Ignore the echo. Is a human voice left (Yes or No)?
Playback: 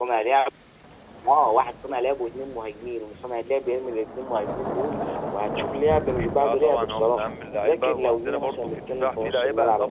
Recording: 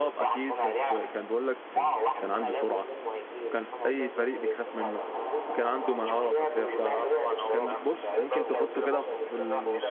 Yes